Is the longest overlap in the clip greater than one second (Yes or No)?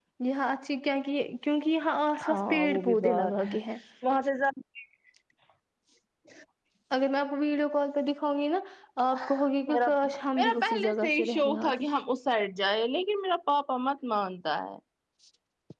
Yes